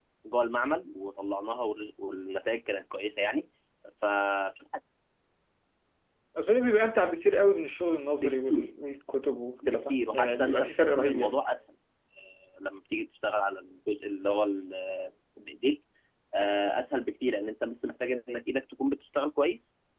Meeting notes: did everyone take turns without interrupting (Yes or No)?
No